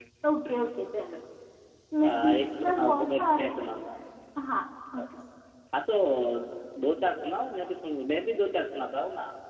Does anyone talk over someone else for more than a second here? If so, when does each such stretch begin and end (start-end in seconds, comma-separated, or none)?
2.0-3.8